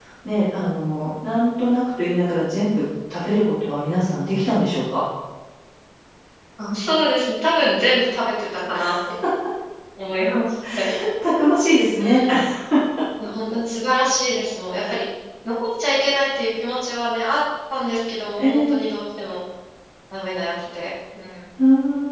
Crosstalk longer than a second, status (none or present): none